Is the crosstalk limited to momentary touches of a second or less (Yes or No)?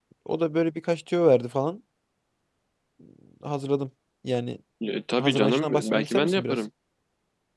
No